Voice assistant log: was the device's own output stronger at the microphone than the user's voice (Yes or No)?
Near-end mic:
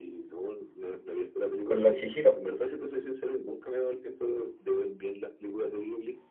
No